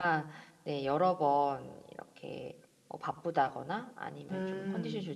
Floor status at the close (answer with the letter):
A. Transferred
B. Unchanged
B